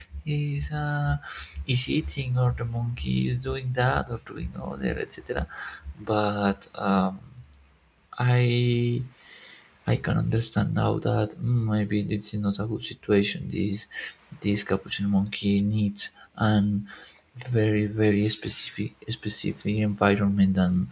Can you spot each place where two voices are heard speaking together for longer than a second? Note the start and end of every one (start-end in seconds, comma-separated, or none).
none